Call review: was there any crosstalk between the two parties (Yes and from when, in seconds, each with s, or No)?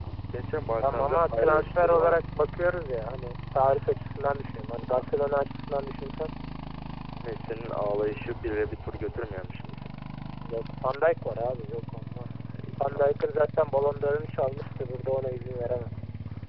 Yes, from 0.8 s